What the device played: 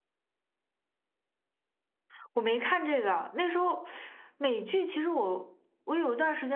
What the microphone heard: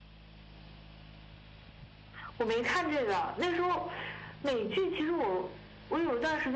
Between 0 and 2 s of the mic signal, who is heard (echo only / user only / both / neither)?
neither